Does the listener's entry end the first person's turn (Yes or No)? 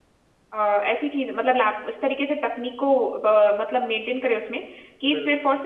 No